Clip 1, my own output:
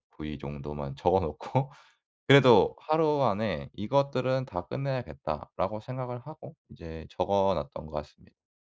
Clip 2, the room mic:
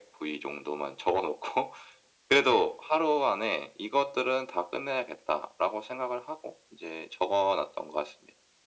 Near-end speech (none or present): none